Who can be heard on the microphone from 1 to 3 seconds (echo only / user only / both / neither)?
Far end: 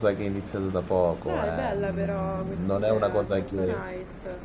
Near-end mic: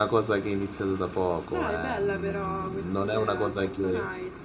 echo only